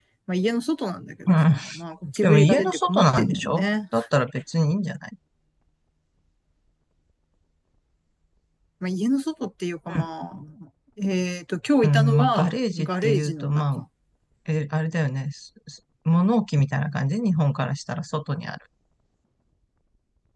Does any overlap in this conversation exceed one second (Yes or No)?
Yes